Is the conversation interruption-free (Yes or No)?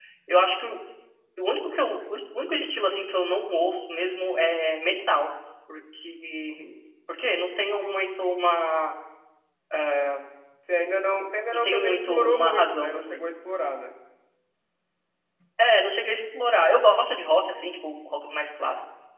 No